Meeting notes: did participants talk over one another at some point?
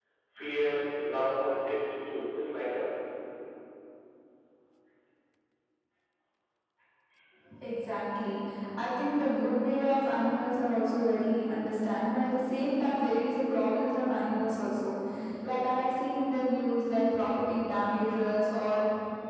No

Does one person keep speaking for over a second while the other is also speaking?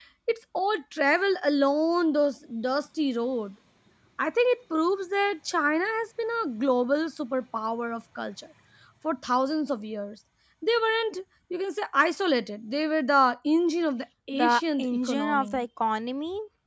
Yes, from 14.3 s

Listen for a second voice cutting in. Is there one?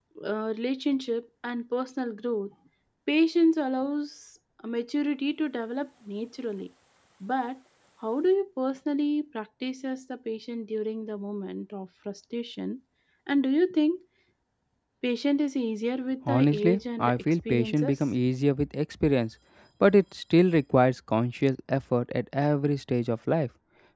Yes, from 16.3 s

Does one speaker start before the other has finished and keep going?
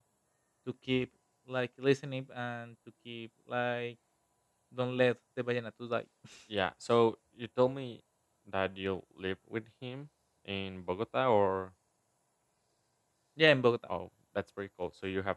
No

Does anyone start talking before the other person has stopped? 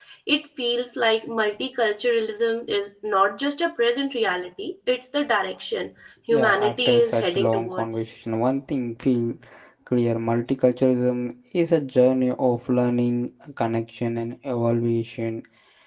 Yes, from 6.3 s

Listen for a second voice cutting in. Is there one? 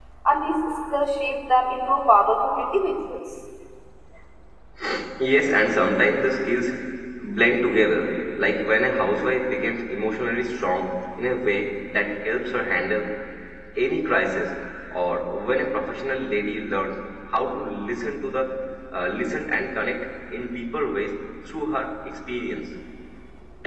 No

